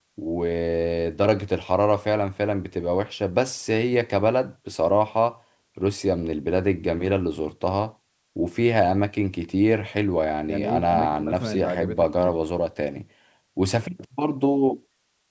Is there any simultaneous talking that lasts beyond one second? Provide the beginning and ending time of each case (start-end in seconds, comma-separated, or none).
10.5-12.3